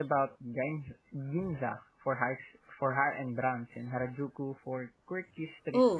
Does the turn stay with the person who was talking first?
No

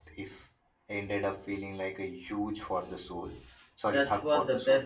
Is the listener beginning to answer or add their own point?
Yes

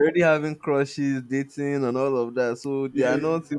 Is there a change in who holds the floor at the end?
Yes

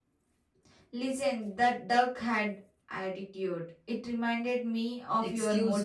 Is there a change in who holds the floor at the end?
Yes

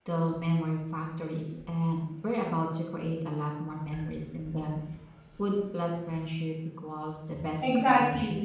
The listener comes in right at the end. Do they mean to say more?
Yes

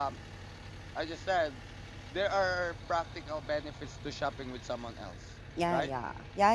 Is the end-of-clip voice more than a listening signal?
Yes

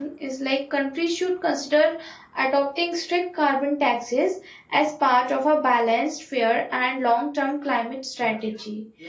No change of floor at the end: No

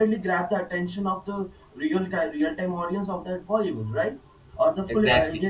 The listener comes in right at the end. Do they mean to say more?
No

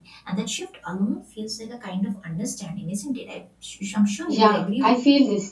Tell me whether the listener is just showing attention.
No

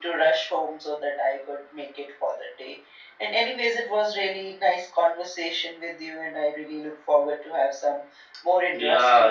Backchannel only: No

